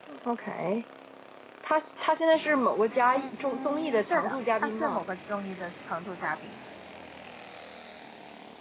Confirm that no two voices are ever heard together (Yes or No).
No